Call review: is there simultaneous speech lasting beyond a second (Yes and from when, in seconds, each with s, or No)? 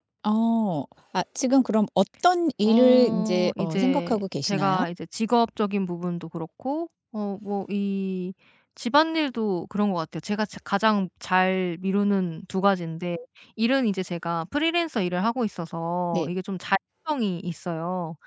Yes, from 2.6 s